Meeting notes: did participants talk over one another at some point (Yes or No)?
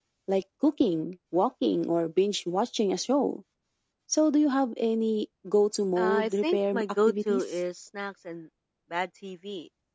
Yes